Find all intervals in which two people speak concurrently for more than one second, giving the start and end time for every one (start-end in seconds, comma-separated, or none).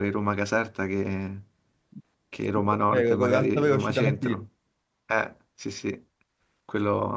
2.9-4.5